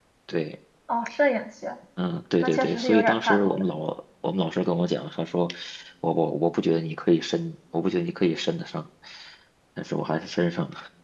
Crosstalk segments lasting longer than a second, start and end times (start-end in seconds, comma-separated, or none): 2.4-3.6